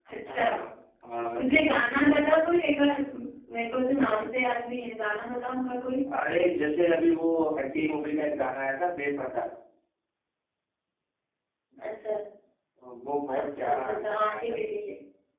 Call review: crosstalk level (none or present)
present